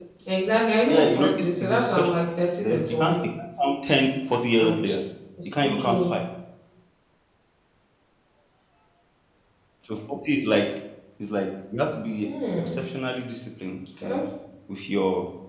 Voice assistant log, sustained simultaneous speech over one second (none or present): present